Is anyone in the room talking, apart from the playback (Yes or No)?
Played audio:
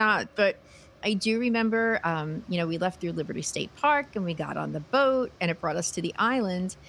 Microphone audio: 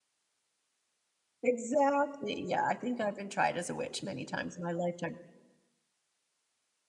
Yes